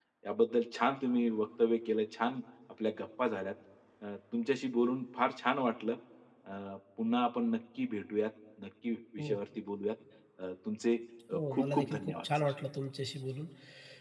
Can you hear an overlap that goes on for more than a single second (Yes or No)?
Yes